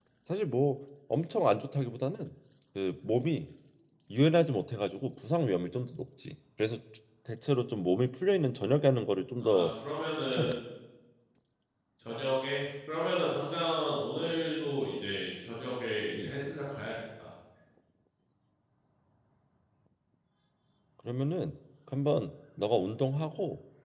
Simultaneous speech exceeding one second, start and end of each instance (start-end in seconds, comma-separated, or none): none